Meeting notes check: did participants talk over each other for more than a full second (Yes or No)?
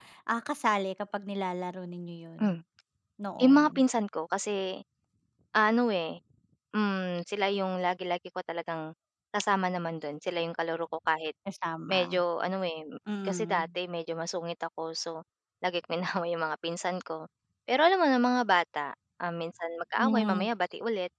No